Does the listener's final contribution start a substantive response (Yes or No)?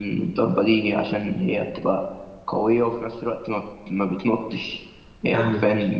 No